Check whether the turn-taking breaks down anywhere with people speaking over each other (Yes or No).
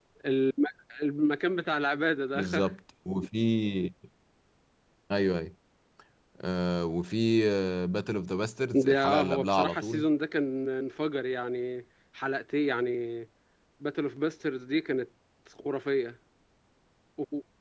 Yes